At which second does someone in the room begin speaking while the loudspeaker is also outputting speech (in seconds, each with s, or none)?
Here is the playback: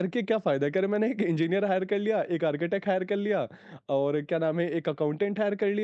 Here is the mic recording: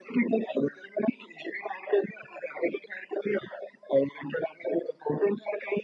none